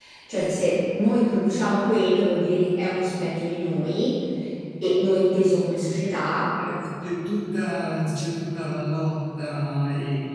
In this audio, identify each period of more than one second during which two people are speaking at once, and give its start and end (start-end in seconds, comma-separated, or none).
none